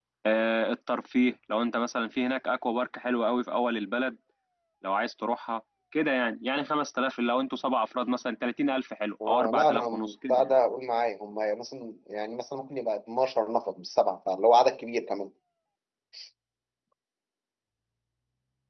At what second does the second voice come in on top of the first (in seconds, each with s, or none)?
9.2 s